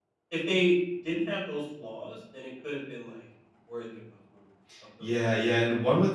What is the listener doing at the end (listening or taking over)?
taking over